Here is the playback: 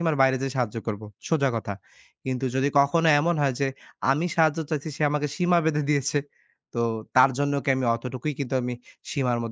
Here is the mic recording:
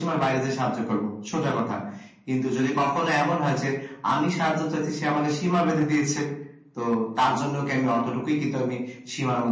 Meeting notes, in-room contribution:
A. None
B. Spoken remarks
A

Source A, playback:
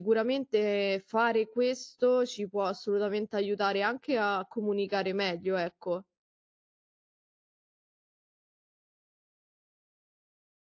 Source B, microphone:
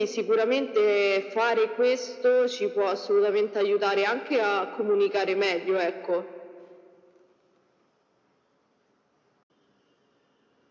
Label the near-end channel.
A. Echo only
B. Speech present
A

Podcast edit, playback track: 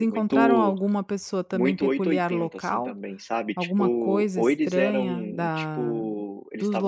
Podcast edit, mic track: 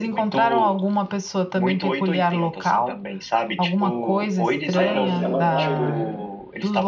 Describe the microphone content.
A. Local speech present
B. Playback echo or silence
A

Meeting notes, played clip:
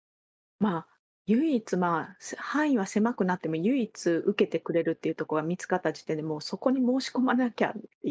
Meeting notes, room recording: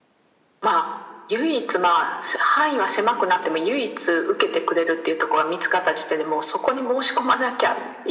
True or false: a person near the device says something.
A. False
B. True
A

